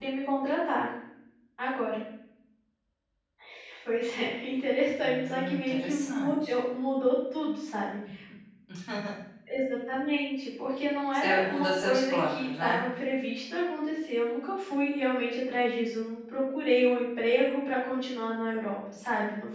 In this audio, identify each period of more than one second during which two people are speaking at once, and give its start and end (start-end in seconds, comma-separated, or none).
5.0-6.6, 11.1-12.8